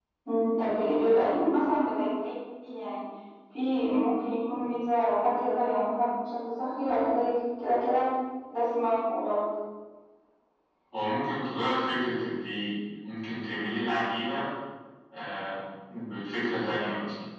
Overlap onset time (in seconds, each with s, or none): none